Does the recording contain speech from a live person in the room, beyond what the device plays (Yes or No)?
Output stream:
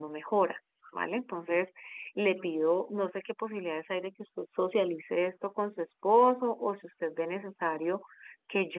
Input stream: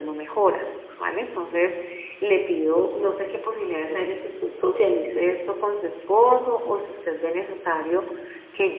No